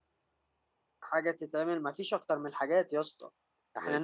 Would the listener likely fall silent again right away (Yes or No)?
Yes